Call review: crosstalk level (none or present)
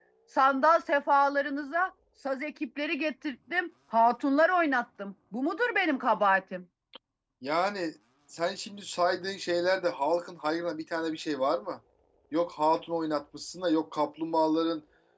none